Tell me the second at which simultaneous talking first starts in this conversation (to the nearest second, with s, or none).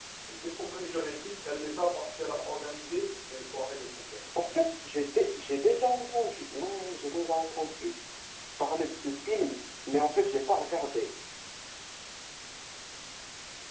none